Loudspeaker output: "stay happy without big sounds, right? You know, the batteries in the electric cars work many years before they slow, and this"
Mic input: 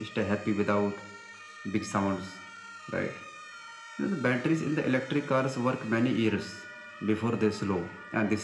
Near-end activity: none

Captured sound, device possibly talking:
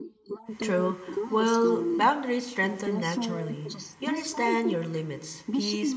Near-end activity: present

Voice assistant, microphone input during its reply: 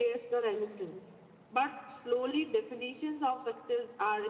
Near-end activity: none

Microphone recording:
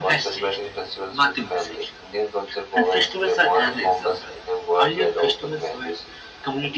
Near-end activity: none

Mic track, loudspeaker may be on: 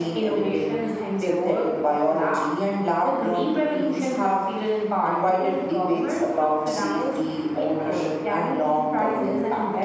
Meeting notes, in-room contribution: none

